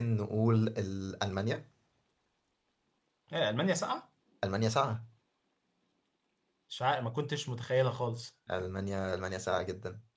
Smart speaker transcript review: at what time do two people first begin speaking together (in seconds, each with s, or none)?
none